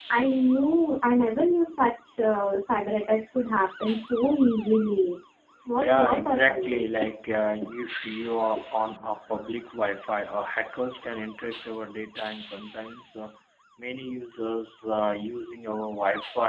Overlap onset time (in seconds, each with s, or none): 5.8 s